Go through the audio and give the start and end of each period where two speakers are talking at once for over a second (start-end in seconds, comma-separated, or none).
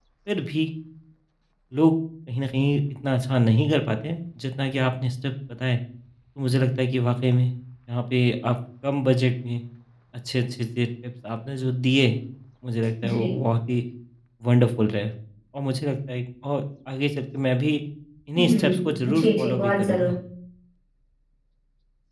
18.4-20.2